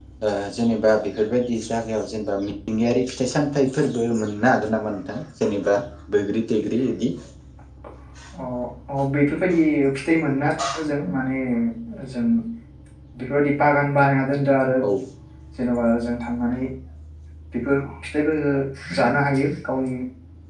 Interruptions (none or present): none